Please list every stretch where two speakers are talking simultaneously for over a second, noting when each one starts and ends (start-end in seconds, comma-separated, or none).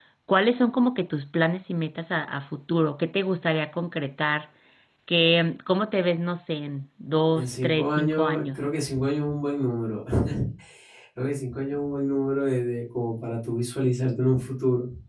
7.3-8.6